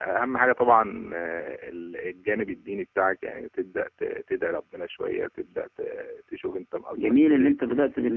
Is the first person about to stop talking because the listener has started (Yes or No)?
Yes